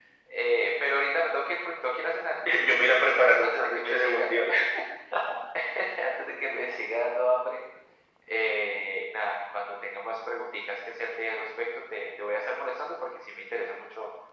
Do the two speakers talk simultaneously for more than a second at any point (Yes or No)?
Yes